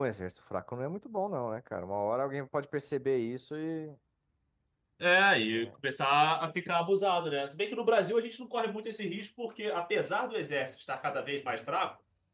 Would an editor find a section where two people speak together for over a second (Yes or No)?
No